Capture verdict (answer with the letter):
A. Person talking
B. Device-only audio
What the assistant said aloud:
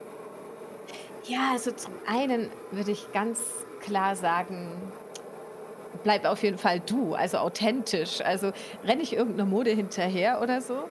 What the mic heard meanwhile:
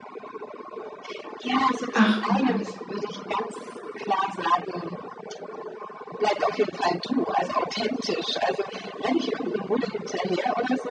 A